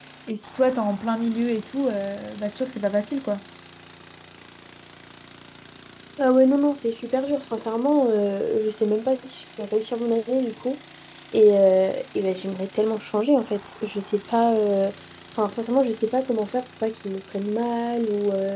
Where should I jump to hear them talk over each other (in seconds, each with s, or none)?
none